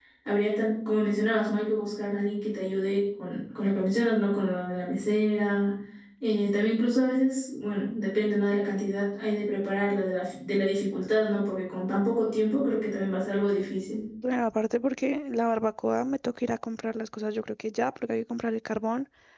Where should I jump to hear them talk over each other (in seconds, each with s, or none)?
none